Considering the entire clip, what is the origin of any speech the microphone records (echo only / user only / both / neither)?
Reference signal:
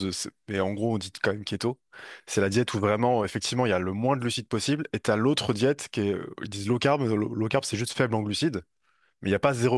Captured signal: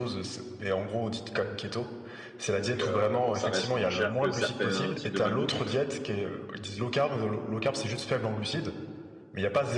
both